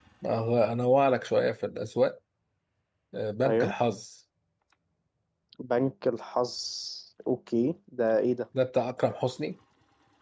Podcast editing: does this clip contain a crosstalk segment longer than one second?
No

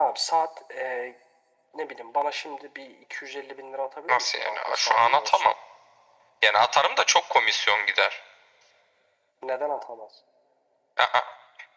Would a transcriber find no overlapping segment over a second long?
No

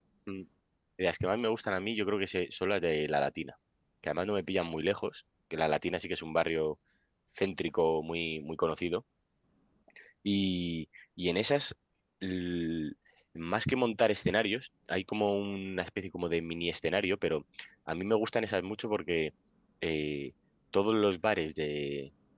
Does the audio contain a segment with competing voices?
No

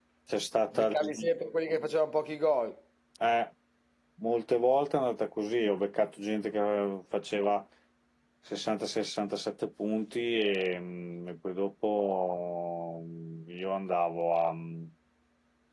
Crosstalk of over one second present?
No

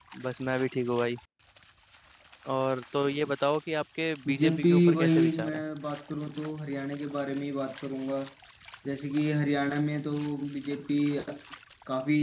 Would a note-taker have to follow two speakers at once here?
Yes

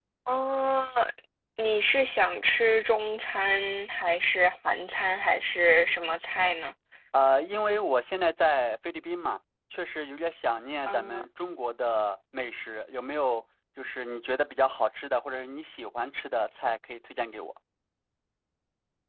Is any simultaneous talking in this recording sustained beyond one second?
No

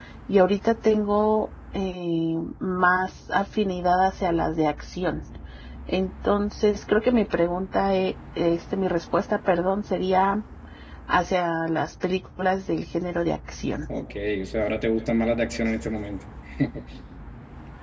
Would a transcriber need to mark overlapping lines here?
No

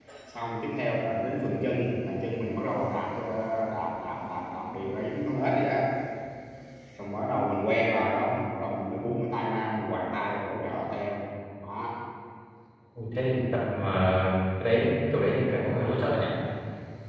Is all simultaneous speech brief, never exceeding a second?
Yes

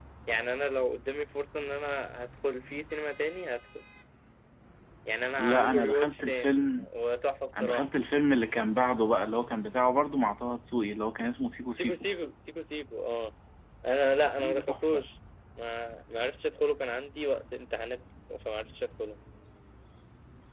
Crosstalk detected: Yes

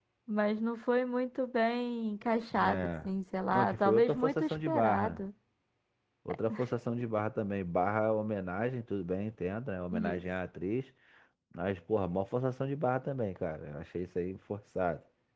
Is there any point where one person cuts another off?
Yes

